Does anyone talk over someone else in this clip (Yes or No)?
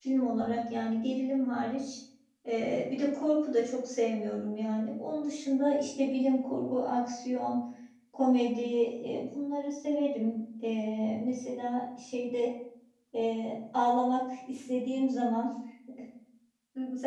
No